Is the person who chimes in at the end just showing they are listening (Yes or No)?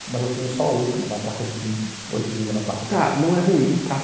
No